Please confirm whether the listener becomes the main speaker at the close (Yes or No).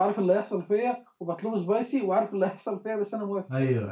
Yes